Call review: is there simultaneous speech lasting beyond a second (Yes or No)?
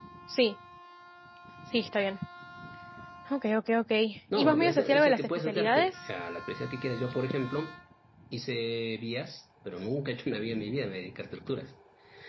Yes